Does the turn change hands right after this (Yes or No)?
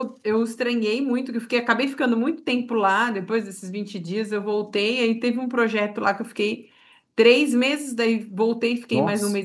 No